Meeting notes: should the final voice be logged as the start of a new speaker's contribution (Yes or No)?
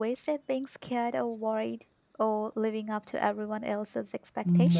Yes